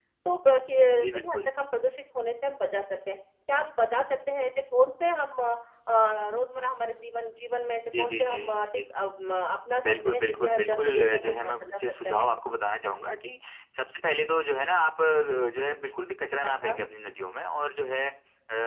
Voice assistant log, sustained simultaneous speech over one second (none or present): present